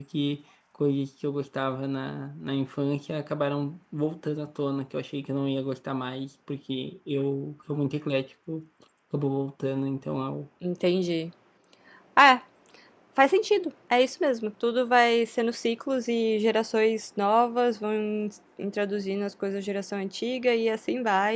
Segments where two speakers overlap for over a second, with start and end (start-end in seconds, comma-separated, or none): none